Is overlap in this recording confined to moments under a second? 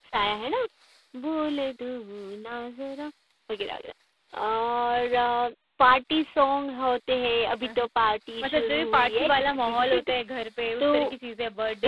No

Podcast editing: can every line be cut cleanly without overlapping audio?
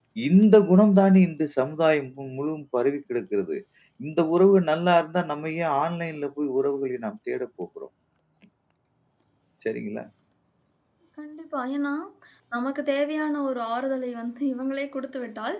Yes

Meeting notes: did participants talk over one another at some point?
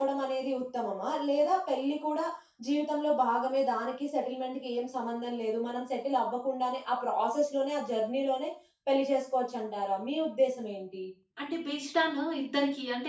No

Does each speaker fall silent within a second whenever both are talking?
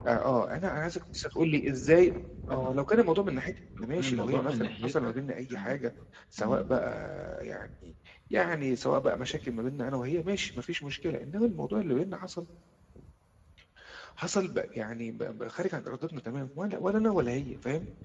No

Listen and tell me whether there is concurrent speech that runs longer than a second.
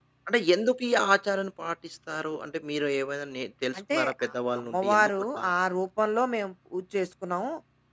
Yes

